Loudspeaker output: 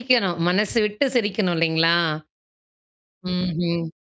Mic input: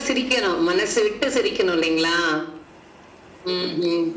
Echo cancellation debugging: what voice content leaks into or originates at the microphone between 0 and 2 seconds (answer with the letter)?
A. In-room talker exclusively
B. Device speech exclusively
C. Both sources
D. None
B